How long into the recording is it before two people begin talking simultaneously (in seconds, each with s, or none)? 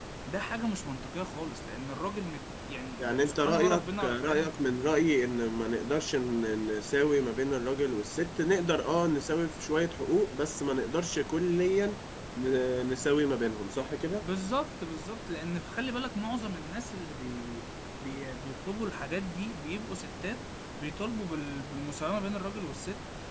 3.0 s